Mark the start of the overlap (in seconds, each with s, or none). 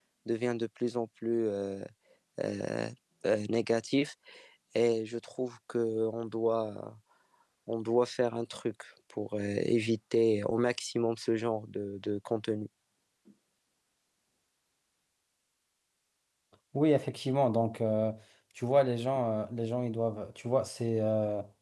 none